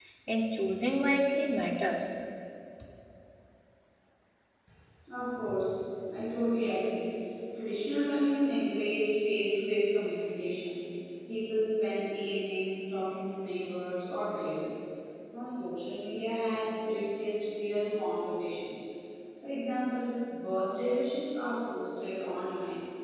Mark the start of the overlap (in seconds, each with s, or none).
none